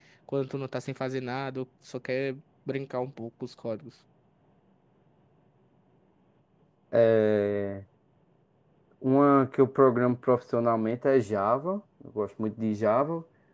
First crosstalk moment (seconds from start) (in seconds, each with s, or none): none